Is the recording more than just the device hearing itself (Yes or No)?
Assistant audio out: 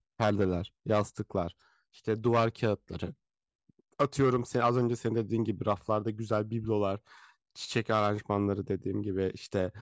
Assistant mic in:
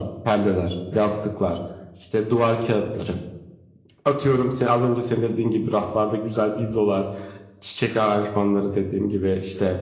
No